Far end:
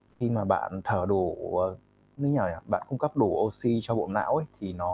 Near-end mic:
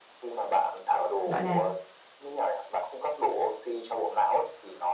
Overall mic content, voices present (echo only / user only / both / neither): both